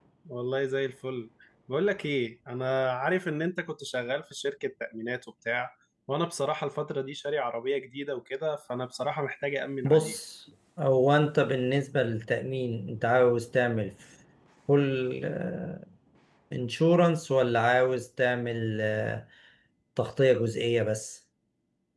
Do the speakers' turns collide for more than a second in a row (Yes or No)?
No